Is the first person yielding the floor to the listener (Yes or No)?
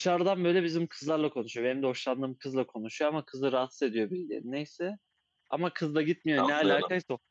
No